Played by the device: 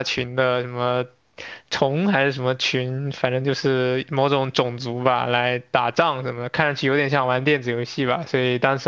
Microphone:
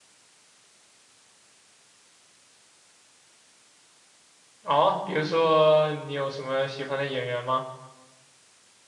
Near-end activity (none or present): present